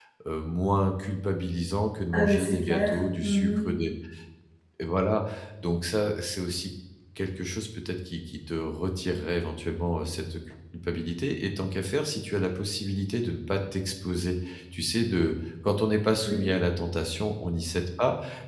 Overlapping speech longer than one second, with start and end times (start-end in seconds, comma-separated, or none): 2.1-3.6